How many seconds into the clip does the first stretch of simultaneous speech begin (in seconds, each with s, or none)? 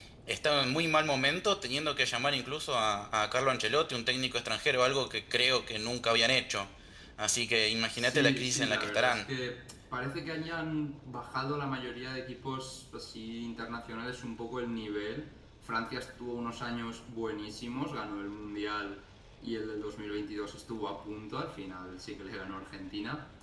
7.9 s